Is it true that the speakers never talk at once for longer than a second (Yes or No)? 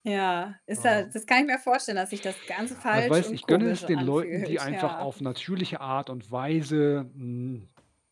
No